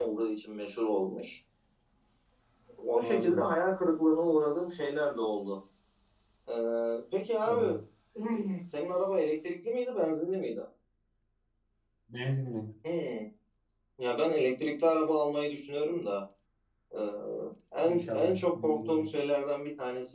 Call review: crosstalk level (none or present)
present